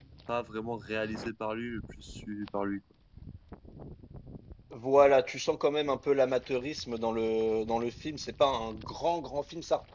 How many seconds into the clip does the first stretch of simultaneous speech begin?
none

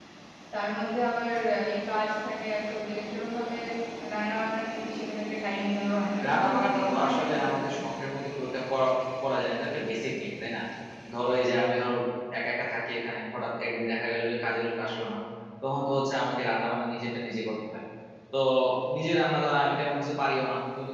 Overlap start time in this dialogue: 6.2 s

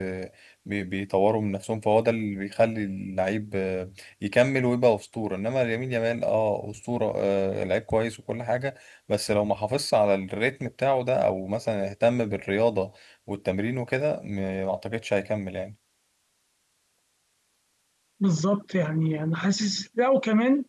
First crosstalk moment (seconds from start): none

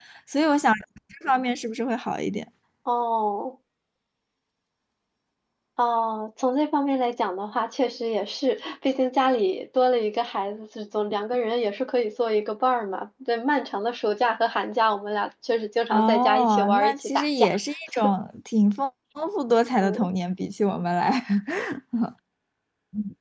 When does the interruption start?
15.9 s

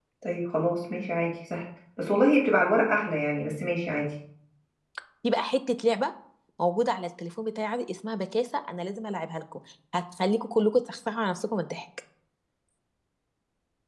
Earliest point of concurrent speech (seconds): none

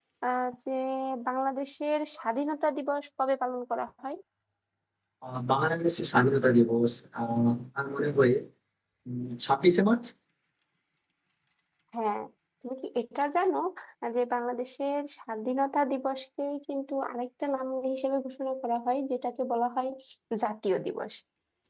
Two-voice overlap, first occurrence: none

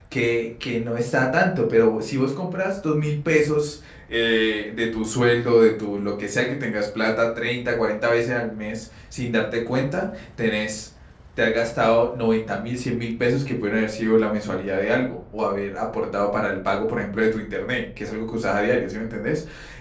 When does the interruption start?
none

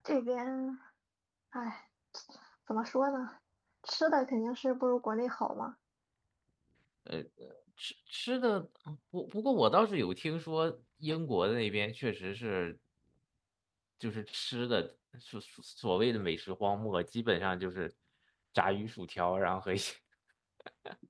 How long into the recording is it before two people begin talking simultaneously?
none

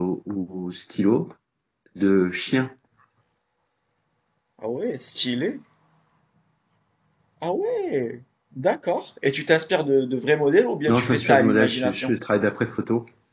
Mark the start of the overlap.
10.9 s

